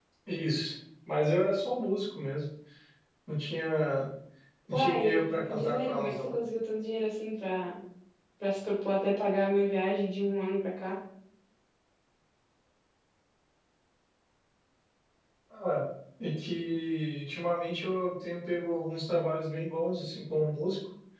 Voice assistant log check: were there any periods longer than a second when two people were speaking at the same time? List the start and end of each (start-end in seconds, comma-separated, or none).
4.7-6.3